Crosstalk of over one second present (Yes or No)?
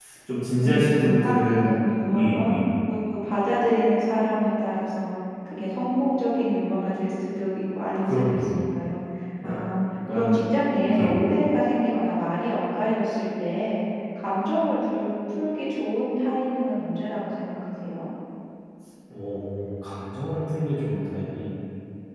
Yes